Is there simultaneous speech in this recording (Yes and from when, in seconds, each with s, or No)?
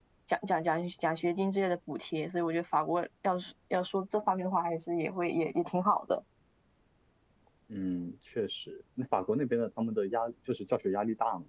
No